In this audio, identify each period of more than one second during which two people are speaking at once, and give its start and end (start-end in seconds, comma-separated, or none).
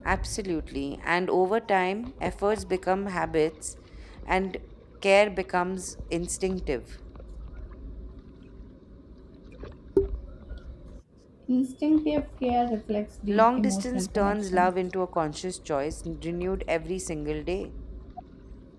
13.3-14.7